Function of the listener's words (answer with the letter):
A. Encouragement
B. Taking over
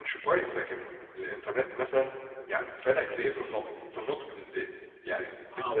B